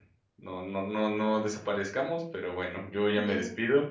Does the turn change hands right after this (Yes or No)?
No